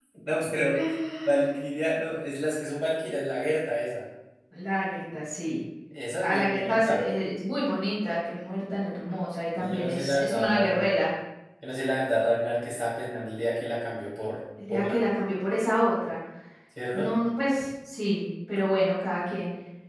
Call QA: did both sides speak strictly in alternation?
No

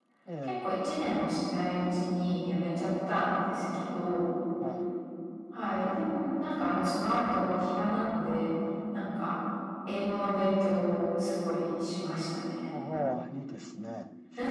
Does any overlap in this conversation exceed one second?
No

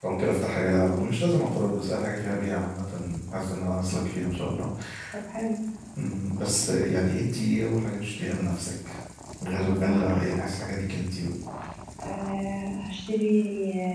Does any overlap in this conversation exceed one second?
No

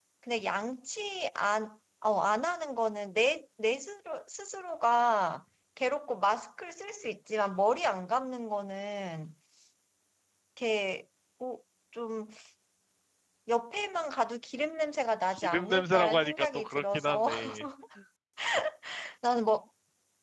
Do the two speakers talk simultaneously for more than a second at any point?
Yes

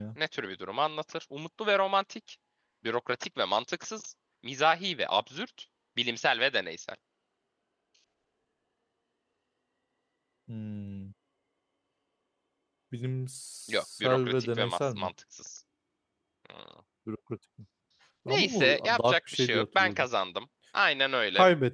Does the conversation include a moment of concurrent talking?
Yes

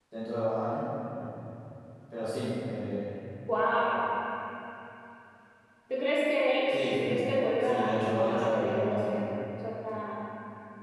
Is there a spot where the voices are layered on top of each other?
Yes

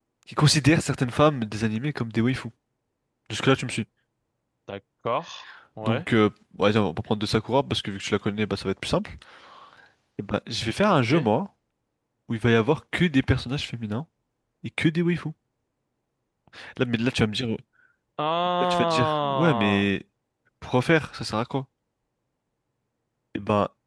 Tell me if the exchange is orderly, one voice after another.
No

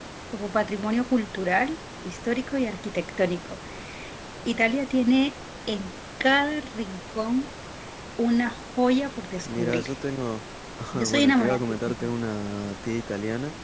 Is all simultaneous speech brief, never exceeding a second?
No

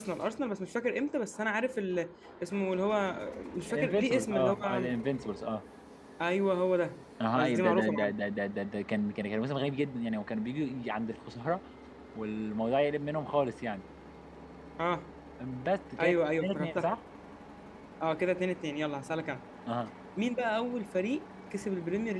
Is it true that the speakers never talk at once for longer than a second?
No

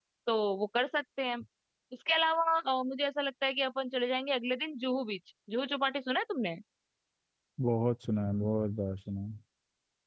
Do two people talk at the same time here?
No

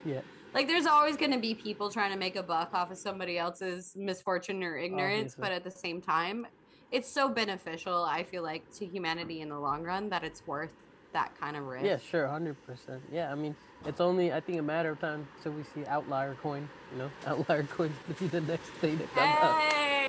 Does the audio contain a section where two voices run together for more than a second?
No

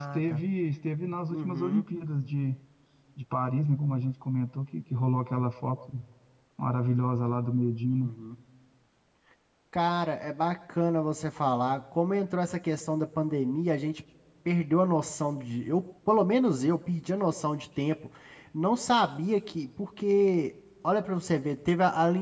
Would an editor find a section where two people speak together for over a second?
No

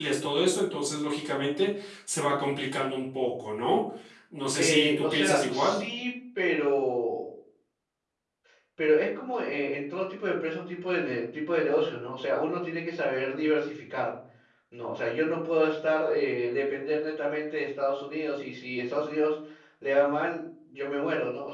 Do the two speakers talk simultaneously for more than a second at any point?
Yes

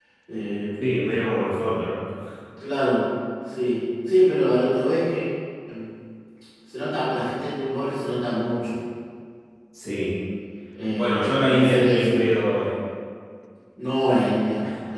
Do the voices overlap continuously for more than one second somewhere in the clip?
Yes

